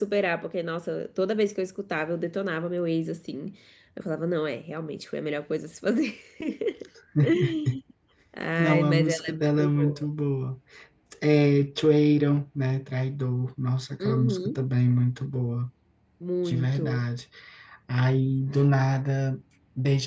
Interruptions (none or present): present